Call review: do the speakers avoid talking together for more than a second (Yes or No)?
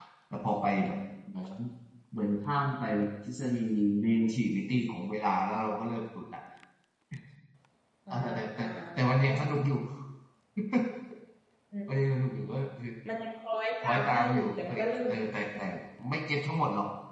No